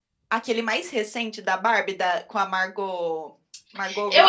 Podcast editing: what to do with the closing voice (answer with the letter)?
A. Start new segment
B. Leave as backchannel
A